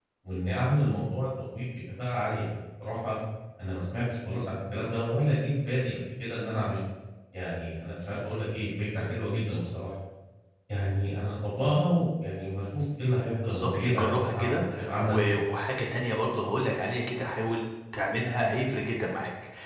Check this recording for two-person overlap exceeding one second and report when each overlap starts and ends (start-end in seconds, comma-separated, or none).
13.4-15.4